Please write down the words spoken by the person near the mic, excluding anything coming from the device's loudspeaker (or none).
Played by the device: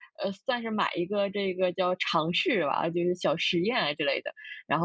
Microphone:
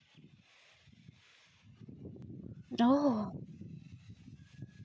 哦，